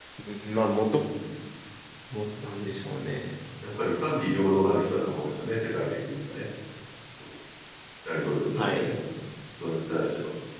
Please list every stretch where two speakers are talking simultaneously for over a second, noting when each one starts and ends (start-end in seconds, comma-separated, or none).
none